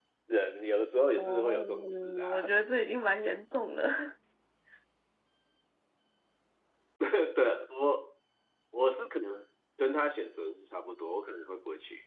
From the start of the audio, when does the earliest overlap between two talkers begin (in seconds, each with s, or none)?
1.2 s